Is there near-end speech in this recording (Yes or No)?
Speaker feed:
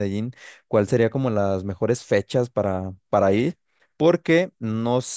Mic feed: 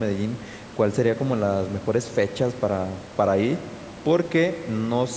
No